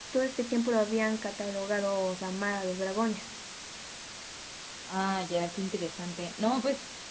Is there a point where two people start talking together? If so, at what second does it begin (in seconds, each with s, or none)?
none